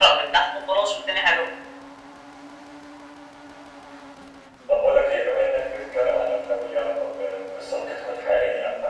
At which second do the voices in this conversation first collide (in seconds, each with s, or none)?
none